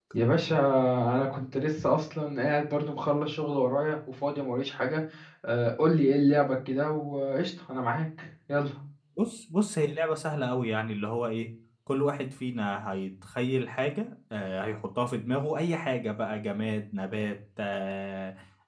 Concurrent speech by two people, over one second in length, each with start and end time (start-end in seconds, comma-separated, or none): none